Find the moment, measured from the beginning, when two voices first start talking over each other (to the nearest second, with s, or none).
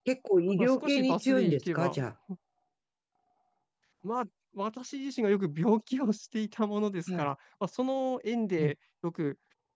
1 s